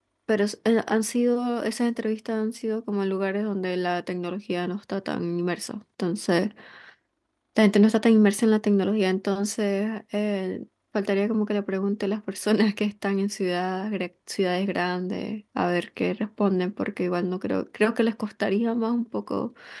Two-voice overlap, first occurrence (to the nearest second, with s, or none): none